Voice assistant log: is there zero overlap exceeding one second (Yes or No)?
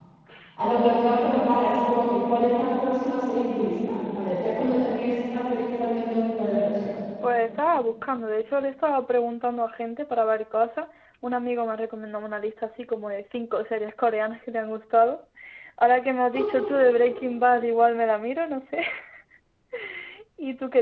Yes